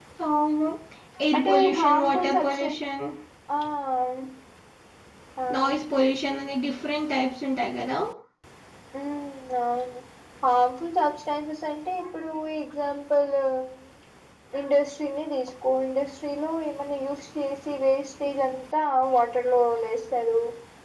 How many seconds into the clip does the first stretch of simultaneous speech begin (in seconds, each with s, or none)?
1.4 s